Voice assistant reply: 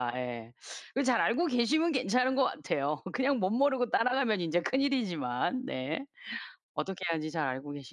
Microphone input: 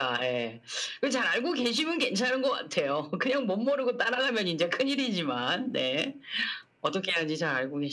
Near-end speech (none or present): none